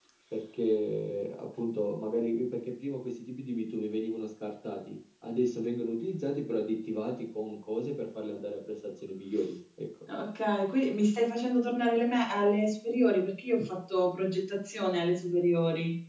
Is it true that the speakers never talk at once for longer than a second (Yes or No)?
Yes